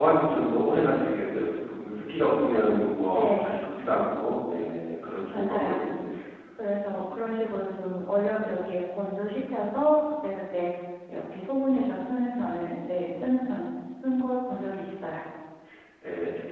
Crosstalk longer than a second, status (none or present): none